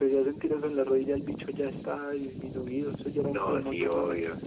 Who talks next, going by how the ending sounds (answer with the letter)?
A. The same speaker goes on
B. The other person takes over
B